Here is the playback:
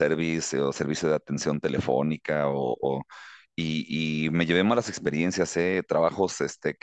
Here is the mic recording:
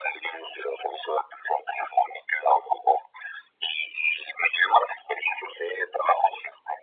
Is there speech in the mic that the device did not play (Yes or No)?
No